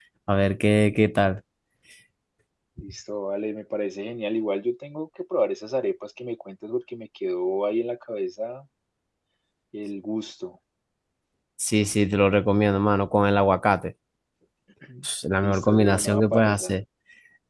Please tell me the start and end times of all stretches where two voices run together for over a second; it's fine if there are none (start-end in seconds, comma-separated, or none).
15.4-16.7